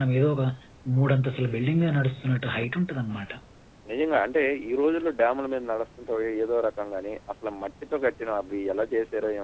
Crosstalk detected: No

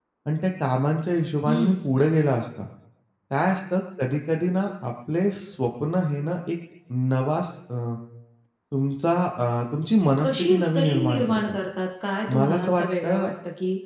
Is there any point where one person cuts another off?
Yes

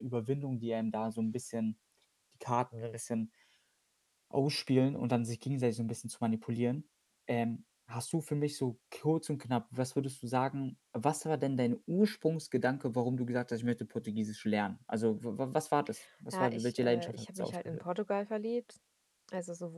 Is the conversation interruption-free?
No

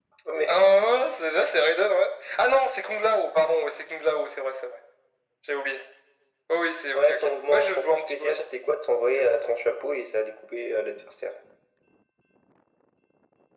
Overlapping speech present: Yes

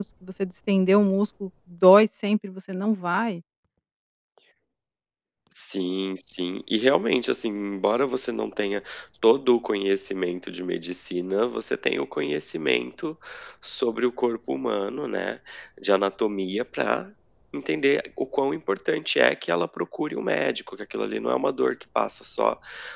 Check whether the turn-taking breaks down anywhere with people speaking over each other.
No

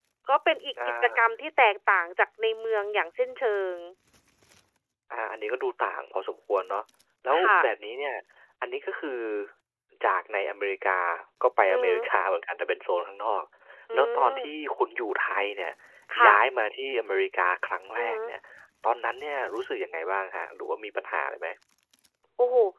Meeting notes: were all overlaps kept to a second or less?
Yes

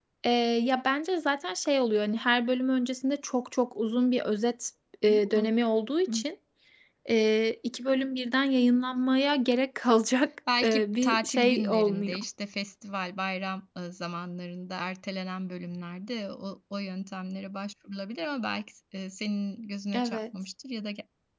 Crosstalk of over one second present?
Yes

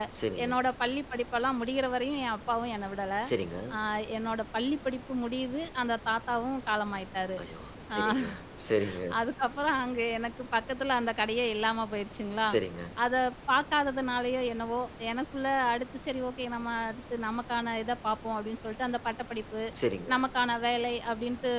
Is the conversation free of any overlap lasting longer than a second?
Yes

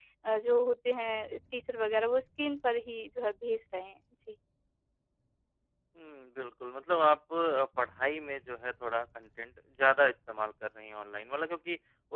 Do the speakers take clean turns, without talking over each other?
Yes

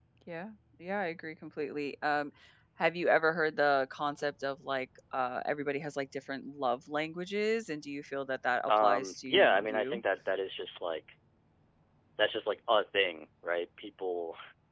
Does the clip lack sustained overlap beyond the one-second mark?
No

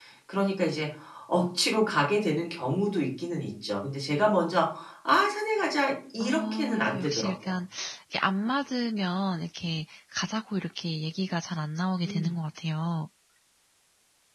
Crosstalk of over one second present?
Yes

